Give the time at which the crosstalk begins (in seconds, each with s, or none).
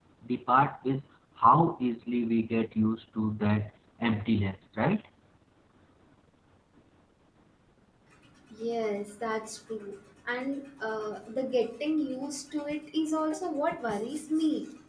none